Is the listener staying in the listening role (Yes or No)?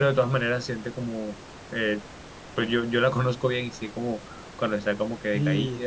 No